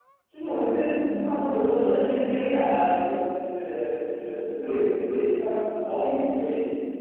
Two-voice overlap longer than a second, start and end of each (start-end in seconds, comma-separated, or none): 0.8-2.9